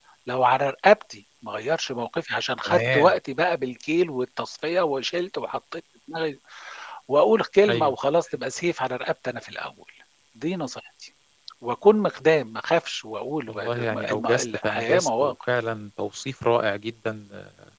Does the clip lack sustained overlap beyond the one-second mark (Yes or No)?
No